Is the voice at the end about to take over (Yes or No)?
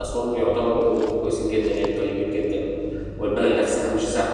No